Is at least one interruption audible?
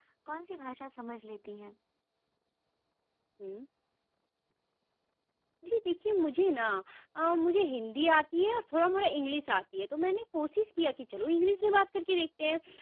No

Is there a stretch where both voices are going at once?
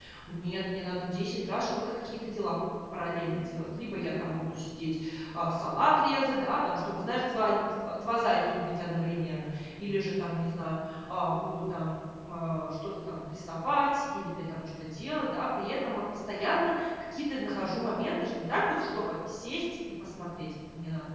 No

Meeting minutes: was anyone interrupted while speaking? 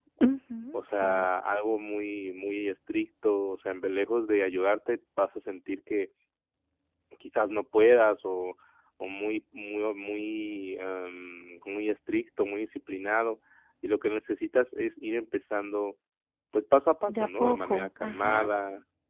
Yes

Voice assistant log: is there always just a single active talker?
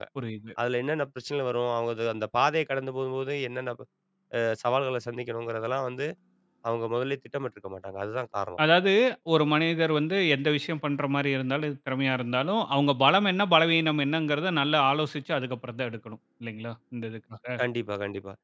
Yes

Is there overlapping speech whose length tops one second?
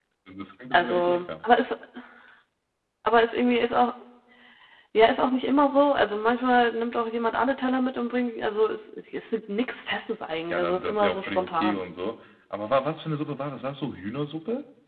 Yes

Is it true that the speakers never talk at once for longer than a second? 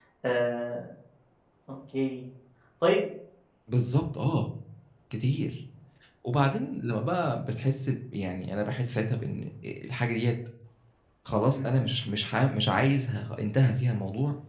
Yes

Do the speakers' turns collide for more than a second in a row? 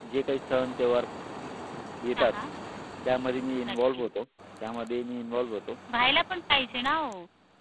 No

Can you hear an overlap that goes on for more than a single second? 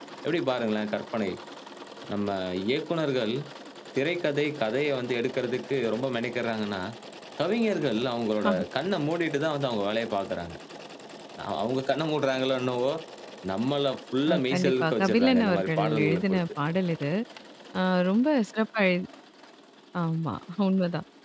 Yes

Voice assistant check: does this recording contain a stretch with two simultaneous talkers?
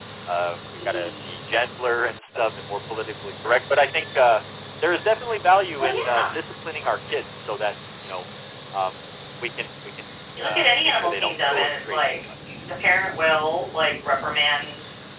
Yes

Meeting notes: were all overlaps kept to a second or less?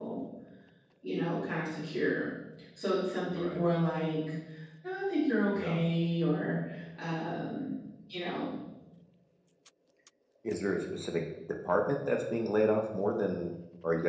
Yes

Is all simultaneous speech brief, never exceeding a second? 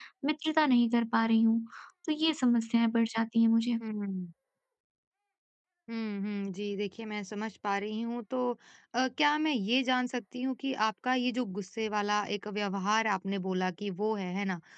Yes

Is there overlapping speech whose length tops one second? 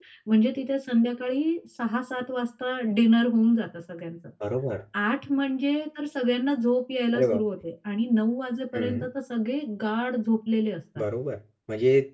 No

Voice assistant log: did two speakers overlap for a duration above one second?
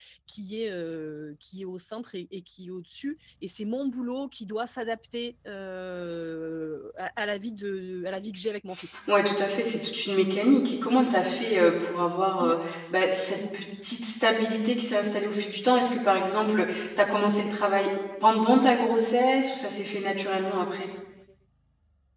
No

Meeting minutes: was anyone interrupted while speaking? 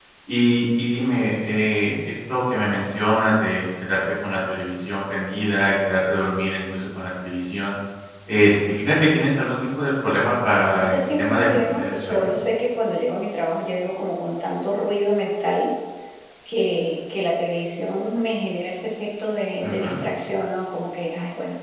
Yes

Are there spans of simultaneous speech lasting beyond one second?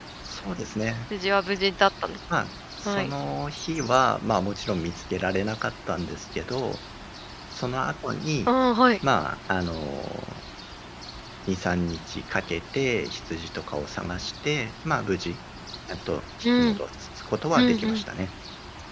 No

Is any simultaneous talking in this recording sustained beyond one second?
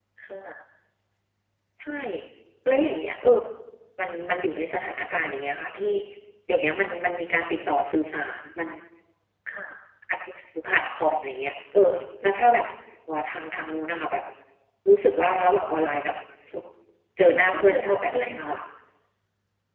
Yes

